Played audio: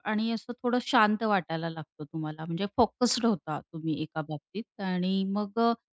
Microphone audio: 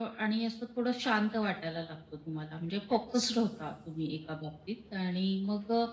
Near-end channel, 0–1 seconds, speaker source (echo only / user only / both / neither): echo only